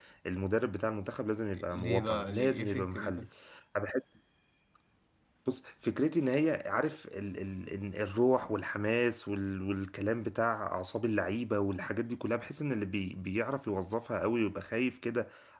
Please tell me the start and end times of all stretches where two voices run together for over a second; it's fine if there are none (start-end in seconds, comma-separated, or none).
1.7-3.3